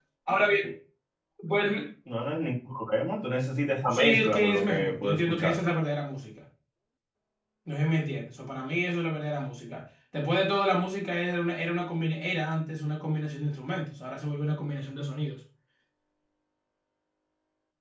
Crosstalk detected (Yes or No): Yes